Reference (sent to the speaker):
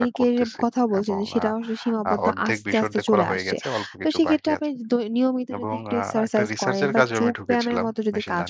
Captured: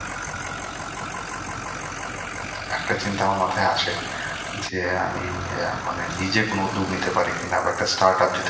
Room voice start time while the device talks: 3 s

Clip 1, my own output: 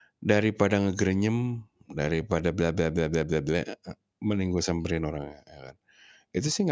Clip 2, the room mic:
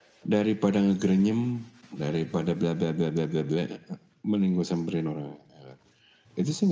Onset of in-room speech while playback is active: none

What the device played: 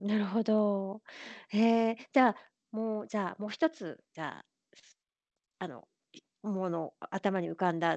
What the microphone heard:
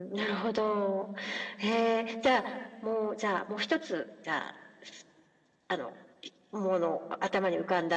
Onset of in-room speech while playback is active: none

